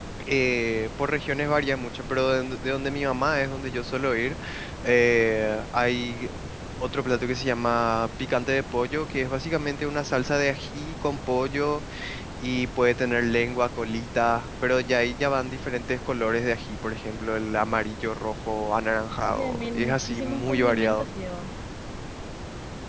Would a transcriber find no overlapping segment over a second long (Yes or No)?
No